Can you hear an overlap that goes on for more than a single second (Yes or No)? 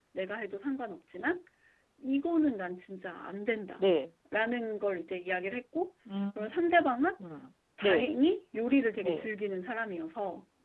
No